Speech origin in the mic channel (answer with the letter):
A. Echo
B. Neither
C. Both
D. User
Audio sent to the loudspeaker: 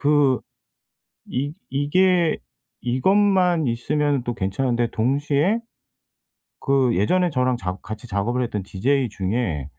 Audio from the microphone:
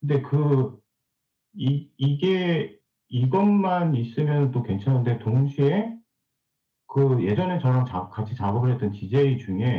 A